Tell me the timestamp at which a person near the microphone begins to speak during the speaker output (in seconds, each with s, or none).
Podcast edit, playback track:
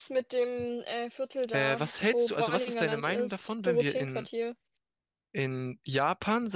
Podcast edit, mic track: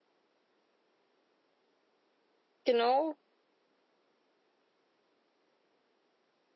2.6 s